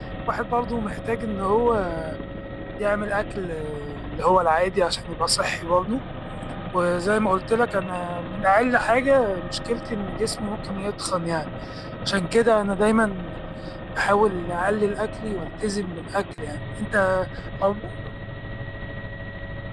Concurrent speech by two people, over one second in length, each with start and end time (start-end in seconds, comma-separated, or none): none